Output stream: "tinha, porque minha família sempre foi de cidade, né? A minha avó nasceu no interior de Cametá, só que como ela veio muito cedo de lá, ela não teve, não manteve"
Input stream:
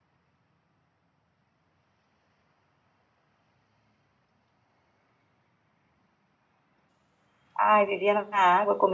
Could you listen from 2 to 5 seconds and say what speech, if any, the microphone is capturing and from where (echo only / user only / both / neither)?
neither